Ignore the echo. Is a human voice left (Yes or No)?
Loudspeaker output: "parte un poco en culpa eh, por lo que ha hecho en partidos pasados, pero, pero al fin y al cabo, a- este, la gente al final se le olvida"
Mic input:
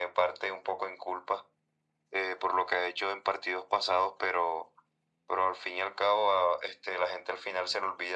No